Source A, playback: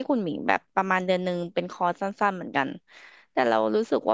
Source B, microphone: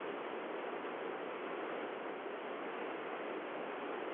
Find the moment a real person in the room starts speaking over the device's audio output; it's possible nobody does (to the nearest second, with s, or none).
none